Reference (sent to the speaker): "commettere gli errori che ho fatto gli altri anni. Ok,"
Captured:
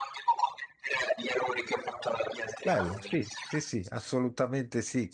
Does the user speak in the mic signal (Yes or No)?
Yes